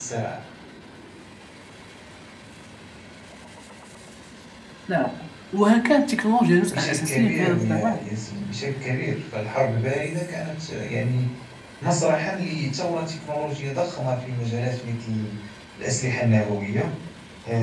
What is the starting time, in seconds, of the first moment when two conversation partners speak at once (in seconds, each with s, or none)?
6.7 s